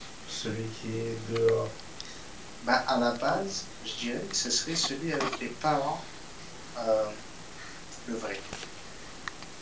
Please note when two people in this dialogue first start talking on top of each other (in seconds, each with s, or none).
none